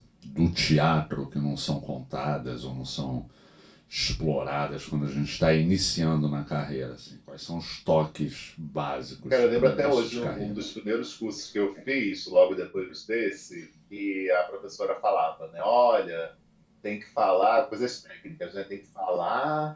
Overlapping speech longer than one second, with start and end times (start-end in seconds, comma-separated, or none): 9.3-10.6